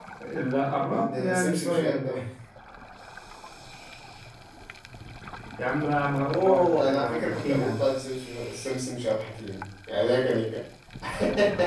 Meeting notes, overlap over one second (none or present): present